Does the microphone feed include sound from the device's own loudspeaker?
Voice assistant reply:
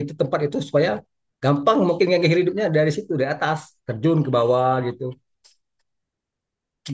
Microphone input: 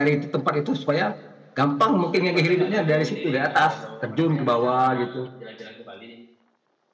Yes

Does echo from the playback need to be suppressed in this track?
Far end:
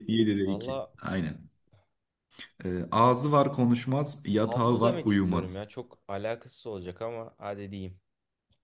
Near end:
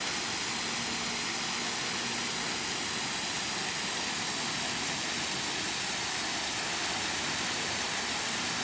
No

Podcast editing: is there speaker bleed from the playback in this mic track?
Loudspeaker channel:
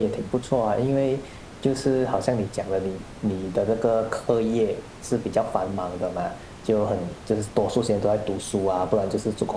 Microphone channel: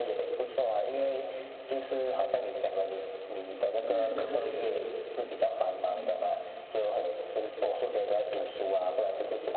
Yes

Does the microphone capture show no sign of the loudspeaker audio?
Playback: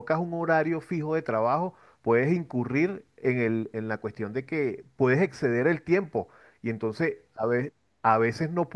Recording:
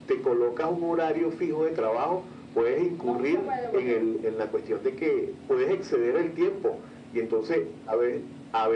No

